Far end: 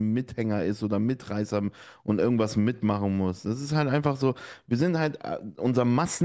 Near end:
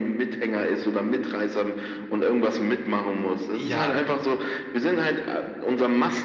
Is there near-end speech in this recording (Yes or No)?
Yes